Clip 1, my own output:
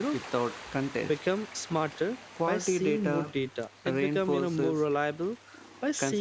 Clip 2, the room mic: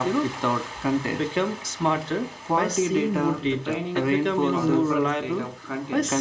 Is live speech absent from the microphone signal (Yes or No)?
No